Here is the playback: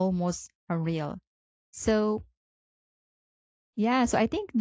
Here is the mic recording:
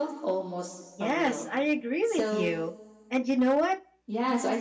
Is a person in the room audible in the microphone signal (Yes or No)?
Yes